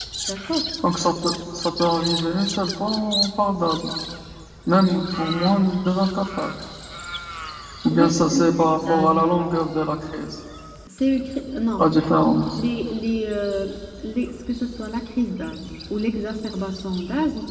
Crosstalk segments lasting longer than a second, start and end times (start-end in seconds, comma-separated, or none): 7.9-9.2